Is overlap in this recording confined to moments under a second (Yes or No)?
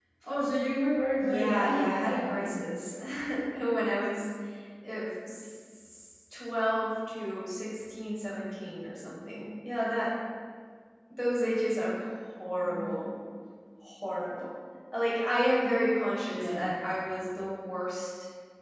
No